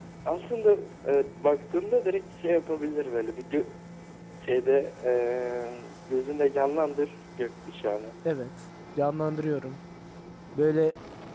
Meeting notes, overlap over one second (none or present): none